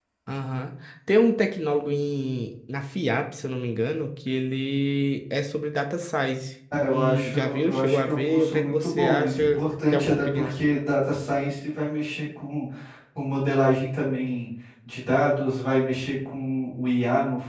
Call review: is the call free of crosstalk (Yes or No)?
No